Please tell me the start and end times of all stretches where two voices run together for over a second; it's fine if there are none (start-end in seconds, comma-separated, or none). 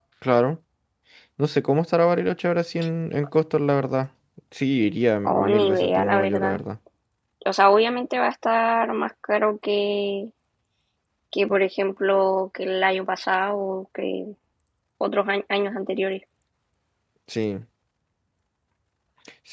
5.2-6.6